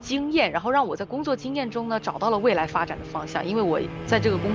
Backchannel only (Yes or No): Yes